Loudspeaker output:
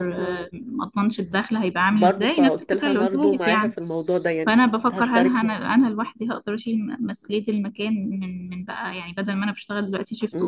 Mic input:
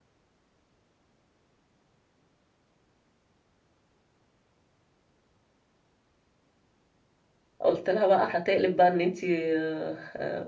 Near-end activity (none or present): present